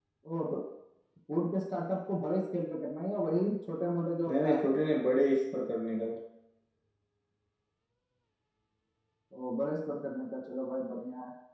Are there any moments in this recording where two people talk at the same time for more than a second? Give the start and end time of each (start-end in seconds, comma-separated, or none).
none